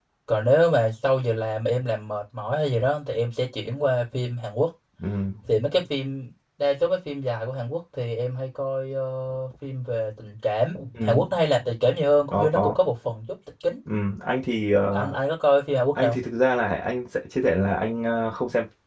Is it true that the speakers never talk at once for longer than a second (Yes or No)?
Yes